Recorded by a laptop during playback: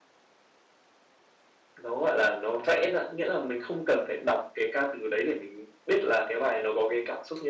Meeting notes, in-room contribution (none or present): present